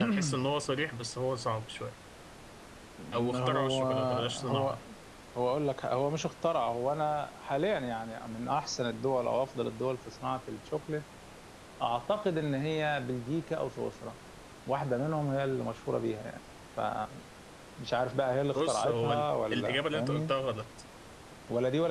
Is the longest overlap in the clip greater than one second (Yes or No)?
Yes